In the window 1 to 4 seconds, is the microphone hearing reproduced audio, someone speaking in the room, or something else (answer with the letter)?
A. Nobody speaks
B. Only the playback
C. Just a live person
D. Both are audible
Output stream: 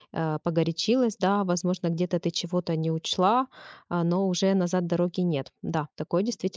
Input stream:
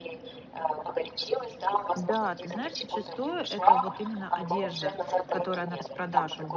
D